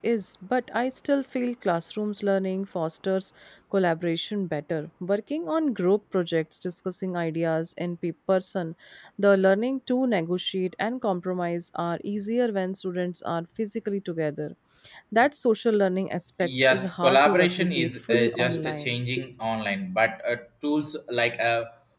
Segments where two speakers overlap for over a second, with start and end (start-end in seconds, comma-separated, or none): 16.6-19.0